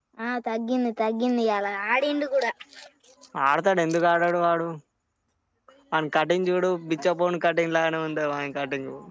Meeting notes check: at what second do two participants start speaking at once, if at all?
none

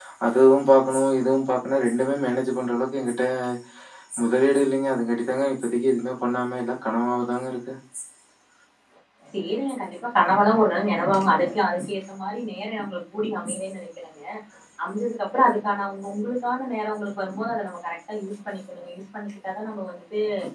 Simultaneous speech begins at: none

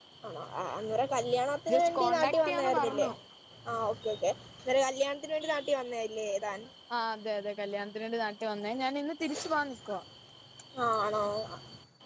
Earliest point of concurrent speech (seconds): 1.7 s

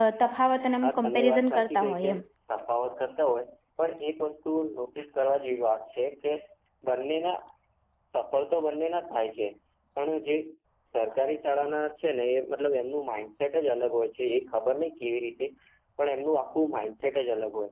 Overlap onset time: 0.8 s

